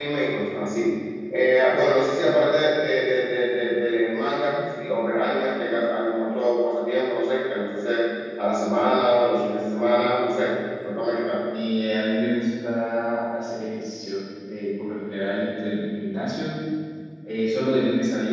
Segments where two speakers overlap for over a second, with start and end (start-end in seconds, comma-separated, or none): none